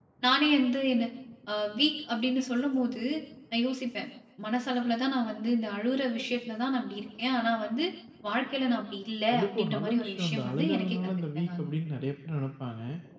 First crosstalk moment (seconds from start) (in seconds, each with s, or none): 9.3 s